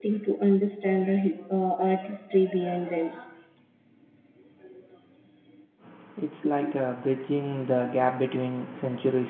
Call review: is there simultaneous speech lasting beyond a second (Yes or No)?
No